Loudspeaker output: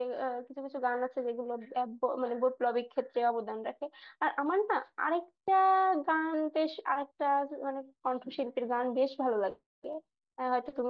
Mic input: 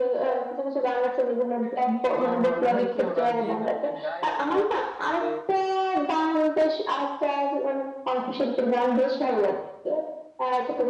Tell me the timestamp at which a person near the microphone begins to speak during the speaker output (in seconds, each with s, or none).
2.0 s